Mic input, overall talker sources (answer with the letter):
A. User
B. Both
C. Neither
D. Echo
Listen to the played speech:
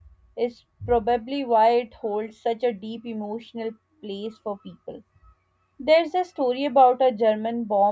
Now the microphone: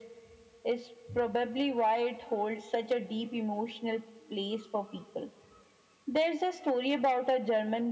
D